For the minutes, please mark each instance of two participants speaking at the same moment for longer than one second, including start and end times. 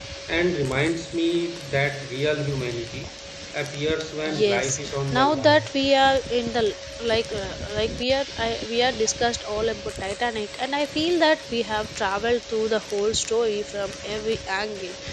4.3-5.7

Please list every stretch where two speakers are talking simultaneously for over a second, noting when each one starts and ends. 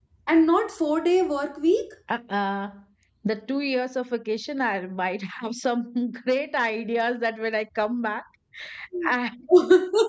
none

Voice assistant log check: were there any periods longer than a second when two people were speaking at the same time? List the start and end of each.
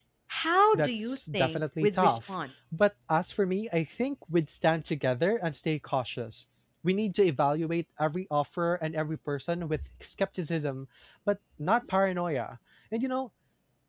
0.7-2.3

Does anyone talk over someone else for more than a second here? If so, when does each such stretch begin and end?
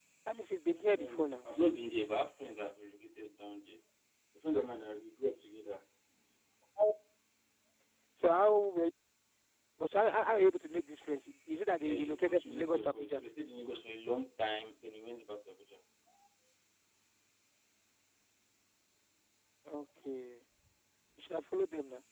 11.8-13.2

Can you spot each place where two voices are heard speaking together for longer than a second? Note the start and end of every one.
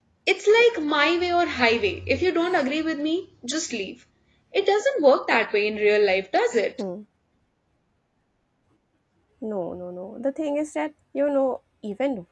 none

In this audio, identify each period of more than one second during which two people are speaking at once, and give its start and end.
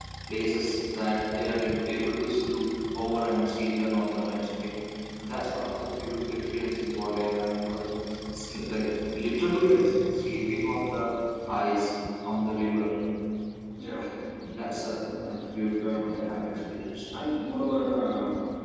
none

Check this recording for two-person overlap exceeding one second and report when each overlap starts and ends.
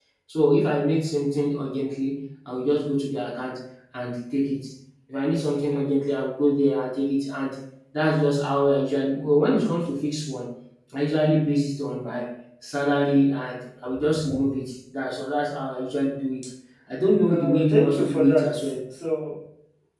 17.3-18.8

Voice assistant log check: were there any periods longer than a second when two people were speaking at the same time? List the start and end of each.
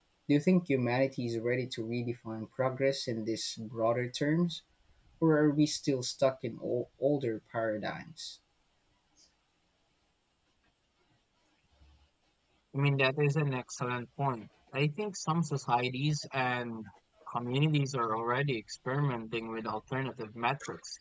none

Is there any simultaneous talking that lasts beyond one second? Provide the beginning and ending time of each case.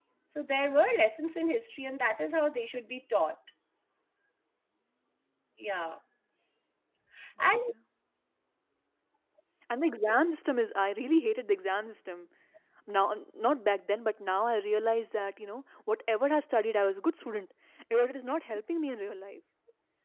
none

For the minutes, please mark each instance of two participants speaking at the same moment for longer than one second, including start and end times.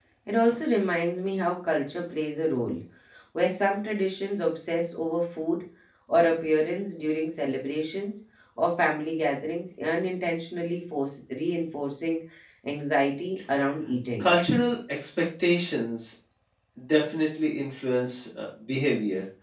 none

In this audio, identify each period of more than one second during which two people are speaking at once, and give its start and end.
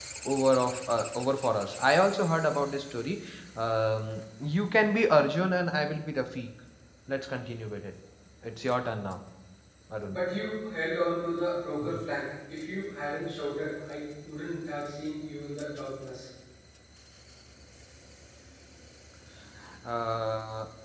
none

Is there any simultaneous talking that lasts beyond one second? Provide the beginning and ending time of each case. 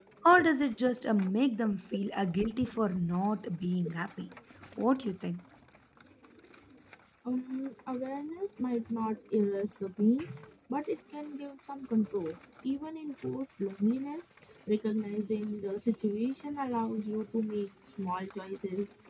none

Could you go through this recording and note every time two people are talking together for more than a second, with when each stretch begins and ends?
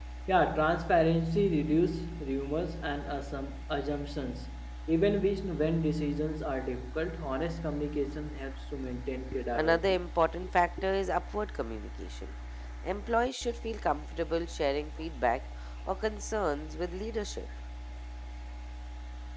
none

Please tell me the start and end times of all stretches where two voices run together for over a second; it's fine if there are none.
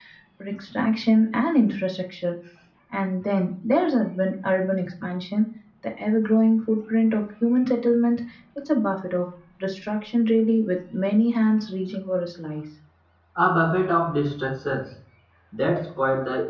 none

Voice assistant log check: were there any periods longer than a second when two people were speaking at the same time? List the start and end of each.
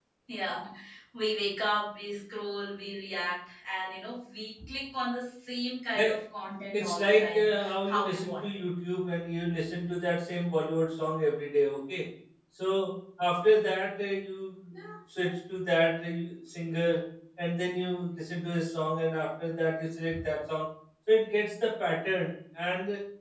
6.8-8.4

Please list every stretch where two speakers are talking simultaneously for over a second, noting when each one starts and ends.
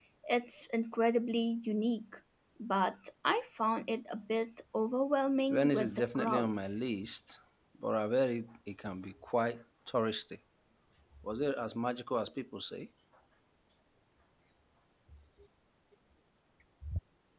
5.5-6.8

